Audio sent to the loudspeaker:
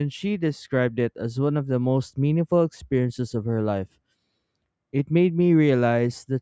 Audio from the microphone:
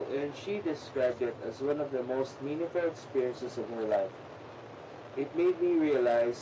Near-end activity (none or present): none